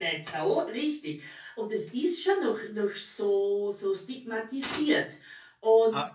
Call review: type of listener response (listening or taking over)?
taking over